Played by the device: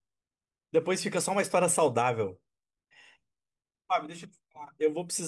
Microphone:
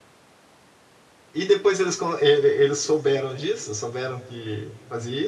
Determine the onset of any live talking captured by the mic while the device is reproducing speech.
1.3 s

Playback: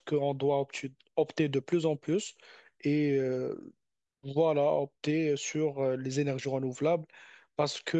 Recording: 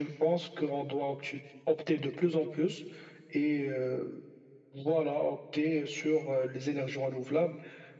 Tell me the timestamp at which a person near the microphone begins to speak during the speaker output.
none

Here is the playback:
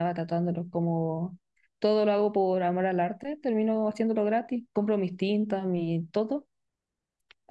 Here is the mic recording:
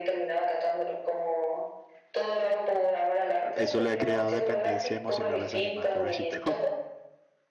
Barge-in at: 3.5 s

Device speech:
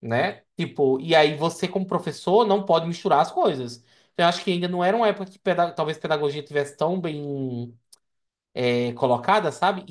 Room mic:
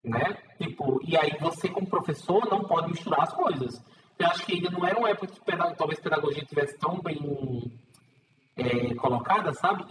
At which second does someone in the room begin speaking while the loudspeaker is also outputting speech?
none

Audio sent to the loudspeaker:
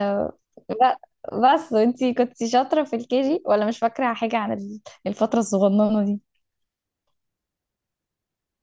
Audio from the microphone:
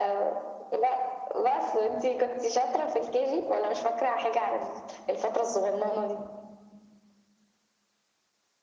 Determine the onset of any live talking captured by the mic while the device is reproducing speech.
none

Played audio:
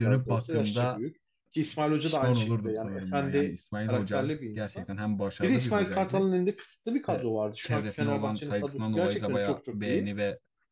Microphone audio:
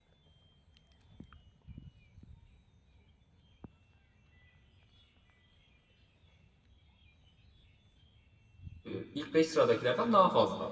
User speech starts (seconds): 8.9 s

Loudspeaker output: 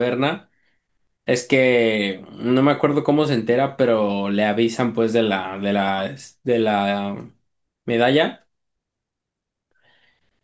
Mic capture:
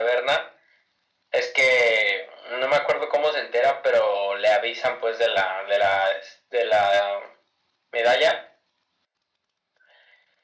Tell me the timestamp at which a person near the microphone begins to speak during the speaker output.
none

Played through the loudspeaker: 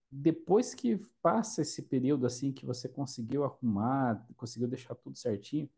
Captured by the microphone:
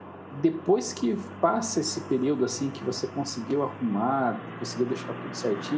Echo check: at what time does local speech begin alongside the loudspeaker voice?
none

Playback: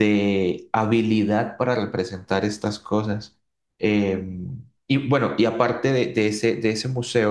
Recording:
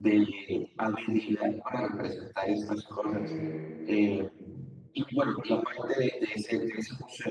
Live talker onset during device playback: 3.0 s

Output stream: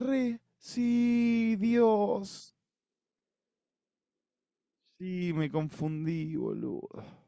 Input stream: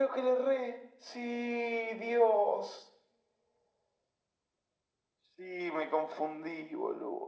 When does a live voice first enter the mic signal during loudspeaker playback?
none

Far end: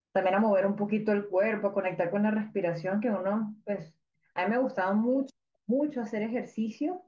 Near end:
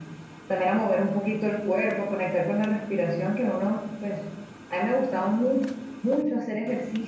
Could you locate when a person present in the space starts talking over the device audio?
none

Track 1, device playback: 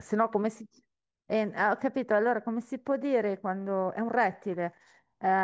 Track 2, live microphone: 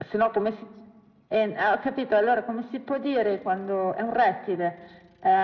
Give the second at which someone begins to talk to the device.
none

